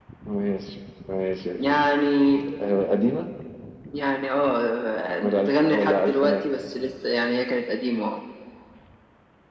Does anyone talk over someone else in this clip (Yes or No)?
Yes